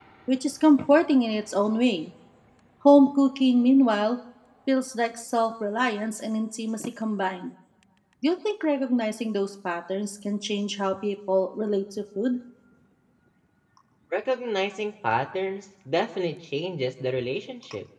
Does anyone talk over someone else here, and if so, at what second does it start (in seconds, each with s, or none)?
none